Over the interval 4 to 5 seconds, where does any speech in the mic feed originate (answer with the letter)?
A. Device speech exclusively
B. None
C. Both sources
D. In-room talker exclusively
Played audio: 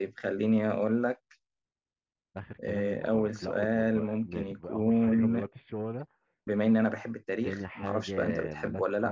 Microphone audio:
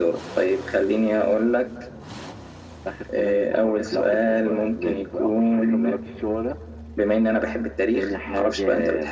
A